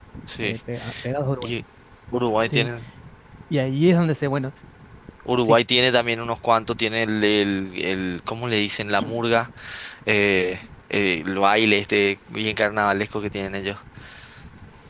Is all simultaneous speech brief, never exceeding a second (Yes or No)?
Yes